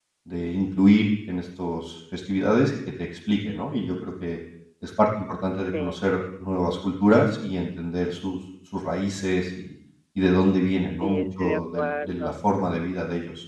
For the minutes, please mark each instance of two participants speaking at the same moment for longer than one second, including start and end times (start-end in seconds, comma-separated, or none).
11.0-12.3